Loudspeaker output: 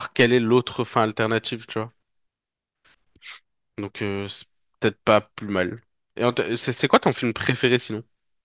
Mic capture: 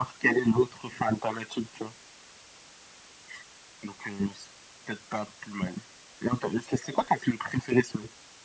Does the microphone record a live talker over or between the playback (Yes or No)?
No